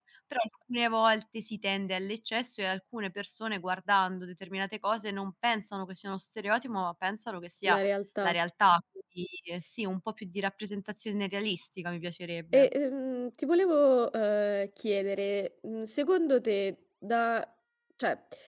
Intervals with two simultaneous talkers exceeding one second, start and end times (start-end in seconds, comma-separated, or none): none